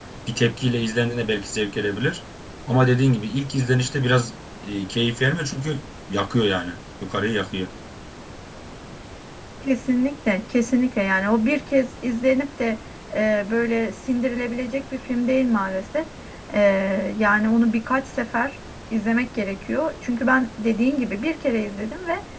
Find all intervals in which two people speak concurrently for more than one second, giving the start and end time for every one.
none

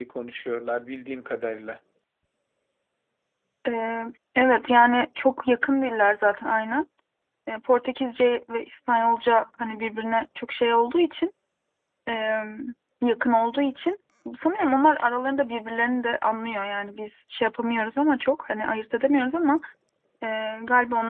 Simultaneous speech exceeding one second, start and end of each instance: none

